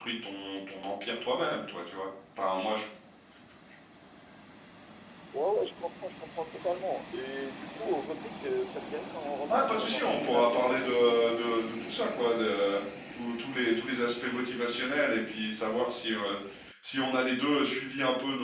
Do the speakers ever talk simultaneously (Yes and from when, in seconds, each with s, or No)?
Yes, from 9.5 s